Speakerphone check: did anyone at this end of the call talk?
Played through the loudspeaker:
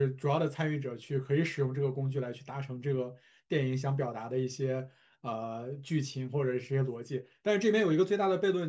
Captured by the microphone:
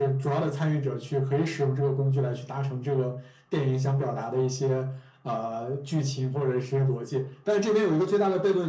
No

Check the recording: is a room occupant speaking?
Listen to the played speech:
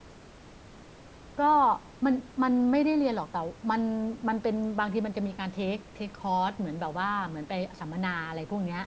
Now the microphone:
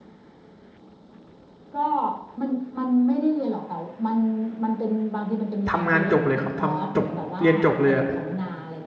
Yes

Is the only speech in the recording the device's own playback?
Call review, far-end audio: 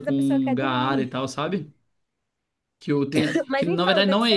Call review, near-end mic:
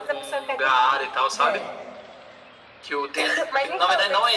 No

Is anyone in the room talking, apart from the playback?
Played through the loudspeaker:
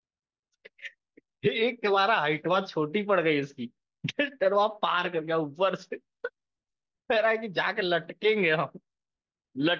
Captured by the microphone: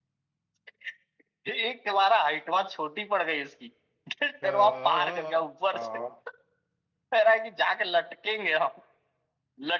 Yes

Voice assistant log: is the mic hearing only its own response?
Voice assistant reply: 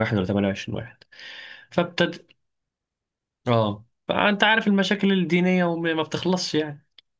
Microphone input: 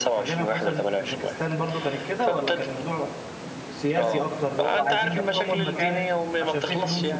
No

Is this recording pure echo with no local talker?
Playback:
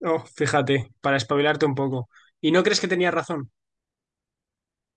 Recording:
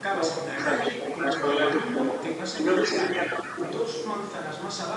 No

